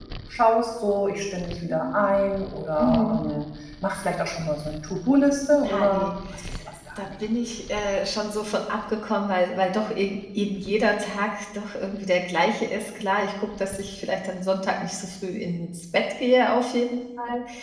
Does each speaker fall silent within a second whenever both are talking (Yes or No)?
Yes